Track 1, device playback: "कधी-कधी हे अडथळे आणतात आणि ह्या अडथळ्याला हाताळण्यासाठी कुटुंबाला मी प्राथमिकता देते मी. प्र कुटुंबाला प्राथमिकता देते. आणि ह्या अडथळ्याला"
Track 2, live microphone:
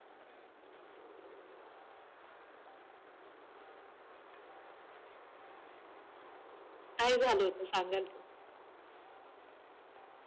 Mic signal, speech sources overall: user only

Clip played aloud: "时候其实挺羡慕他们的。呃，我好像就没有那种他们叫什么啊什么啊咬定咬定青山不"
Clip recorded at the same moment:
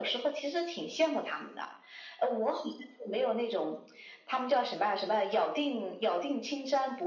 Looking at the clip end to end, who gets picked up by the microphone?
echo only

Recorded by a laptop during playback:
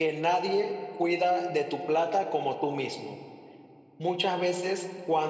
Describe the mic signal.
user only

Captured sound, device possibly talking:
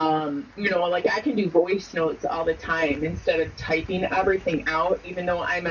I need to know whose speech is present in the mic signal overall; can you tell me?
echo only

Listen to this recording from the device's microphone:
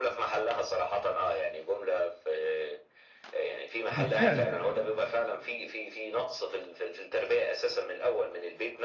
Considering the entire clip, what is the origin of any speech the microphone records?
both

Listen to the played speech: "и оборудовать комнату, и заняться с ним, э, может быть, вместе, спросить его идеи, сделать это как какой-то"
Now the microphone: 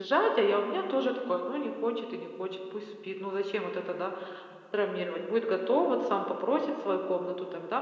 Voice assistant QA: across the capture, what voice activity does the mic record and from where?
user only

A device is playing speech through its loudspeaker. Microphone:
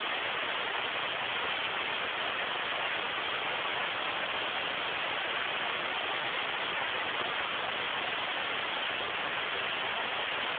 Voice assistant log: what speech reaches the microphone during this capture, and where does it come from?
neither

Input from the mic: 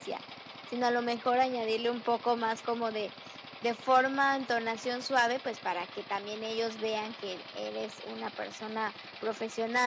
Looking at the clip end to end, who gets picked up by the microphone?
echo only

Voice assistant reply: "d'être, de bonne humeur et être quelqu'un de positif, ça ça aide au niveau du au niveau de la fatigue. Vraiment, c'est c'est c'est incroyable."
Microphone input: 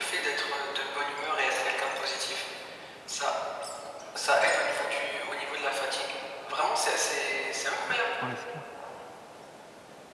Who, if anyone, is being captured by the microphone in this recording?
both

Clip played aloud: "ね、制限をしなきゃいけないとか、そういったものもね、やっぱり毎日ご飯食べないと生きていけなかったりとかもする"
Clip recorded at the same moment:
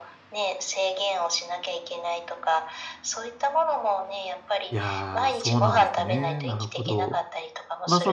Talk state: both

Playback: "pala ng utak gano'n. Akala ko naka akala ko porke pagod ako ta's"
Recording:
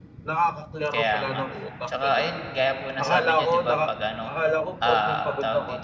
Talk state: both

